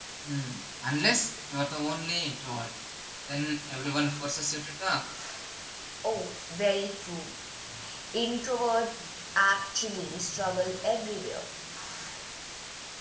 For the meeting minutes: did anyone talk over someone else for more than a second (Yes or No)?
No